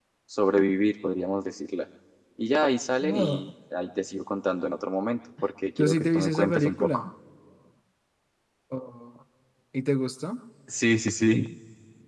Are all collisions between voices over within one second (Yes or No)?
No